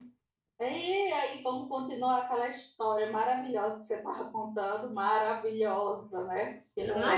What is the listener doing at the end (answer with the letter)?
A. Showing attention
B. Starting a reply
B